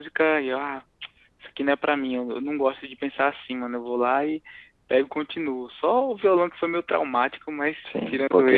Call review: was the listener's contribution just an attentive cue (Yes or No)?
No